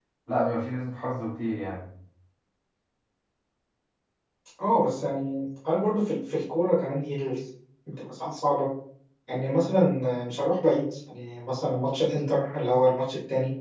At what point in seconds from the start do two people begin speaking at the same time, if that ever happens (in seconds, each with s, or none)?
none